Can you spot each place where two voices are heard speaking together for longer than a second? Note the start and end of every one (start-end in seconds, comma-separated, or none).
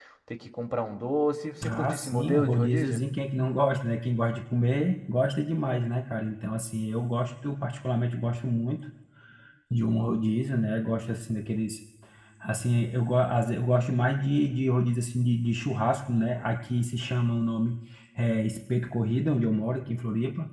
1.7-3.0